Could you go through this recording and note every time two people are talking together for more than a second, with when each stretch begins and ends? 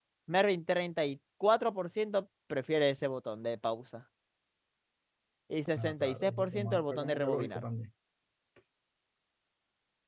5.8-7.6

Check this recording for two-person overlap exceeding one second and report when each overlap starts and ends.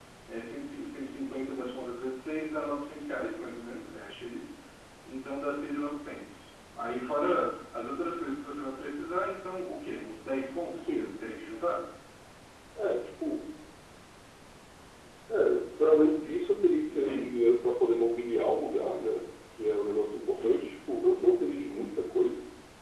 none

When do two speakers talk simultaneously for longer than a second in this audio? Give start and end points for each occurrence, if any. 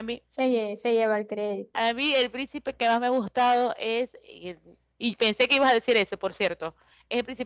none

